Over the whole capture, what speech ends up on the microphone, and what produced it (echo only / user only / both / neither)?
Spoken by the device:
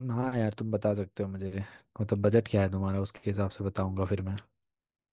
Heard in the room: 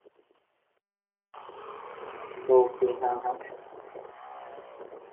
user only